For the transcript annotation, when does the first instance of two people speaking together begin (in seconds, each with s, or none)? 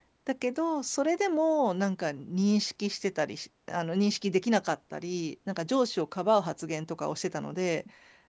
none